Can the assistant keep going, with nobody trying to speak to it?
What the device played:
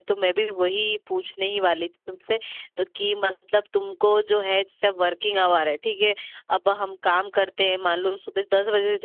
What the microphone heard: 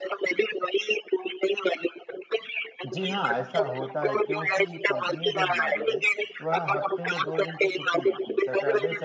No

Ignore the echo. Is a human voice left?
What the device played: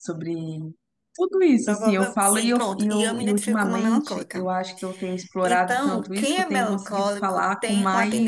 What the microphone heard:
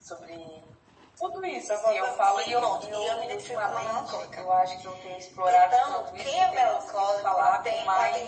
No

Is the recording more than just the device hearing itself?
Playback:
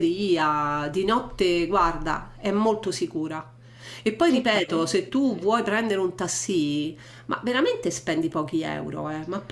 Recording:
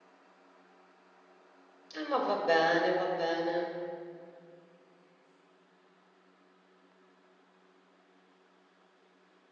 Yes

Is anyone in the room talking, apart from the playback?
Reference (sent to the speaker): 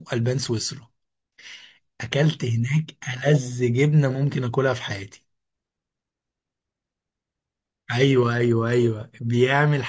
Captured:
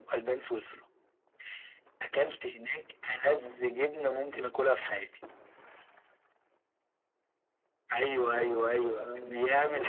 Yes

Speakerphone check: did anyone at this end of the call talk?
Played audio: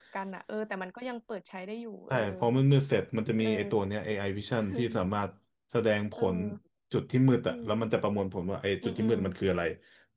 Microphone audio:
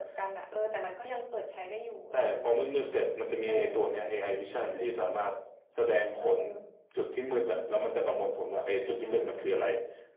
No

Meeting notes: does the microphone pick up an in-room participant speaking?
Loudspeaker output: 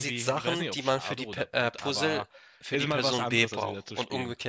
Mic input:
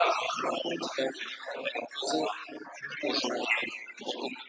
No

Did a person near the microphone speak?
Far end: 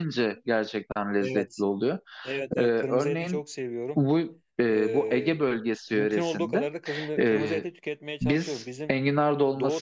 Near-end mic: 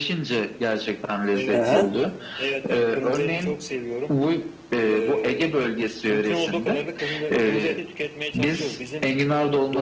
Yes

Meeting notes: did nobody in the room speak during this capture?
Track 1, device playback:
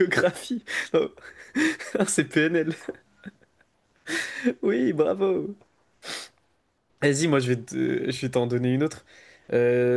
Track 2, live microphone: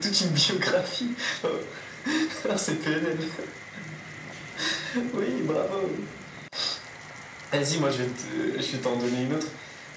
Yes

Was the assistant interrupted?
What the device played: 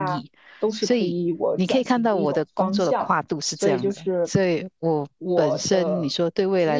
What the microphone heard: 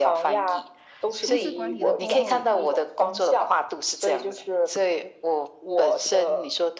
Yes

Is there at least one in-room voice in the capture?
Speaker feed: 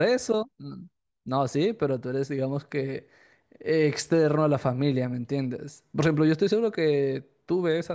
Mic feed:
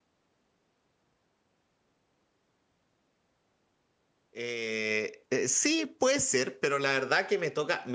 Yes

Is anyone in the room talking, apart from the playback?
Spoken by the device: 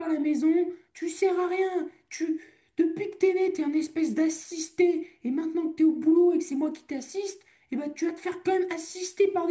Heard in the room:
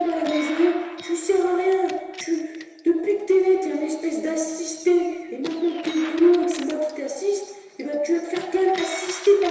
No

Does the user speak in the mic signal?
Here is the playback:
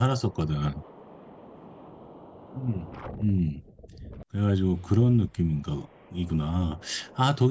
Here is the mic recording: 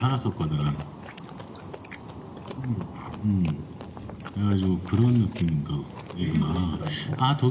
Yes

